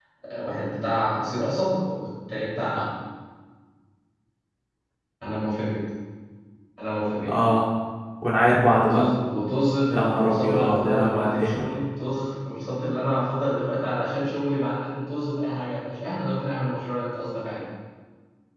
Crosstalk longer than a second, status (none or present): present